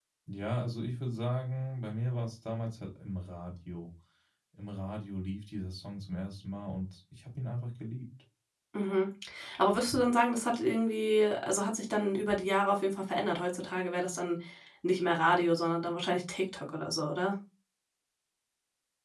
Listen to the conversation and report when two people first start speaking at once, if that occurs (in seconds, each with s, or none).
none